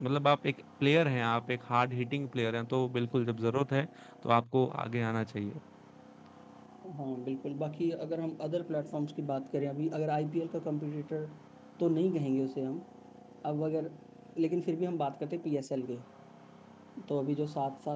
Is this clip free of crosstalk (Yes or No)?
Yes